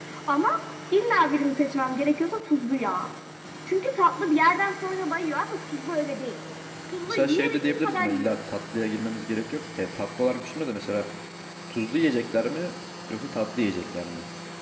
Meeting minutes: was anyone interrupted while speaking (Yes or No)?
Yes